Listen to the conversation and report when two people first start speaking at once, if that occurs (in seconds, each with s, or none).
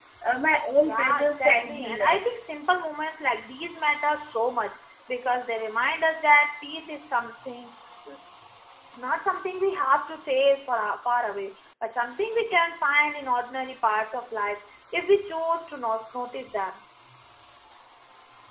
0.8 s